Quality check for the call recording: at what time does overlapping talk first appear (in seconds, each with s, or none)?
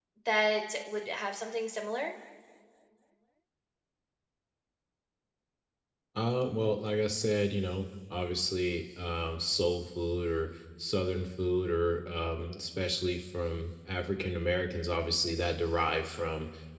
none